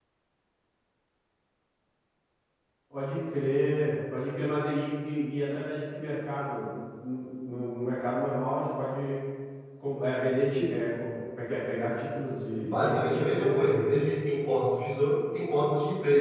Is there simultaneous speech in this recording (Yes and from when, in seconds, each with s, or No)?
Yes, from 12.6 s